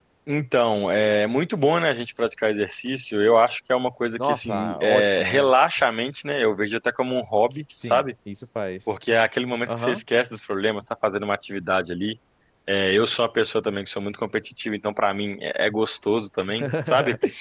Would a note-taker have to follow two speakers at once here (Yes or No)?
Yes